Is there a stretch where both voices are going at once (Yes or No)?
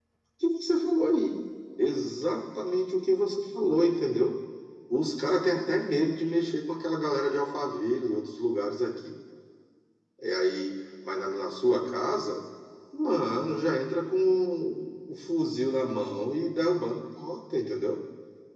No